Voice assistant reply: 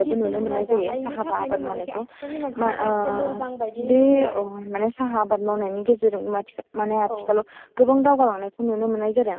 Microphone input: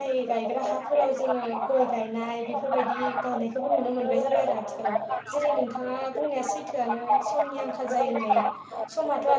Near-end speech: present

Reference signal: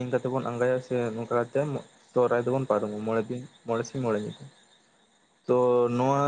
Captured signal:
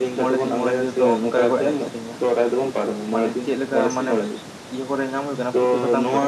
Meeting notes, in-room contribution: present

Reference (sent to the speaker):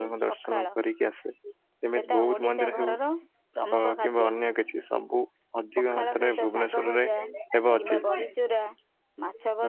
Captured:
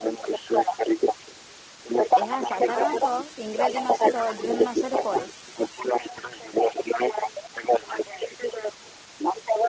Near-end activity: present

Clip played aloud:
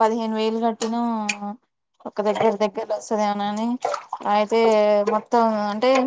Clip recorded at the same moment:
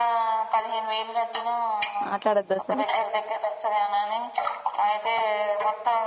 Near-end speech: present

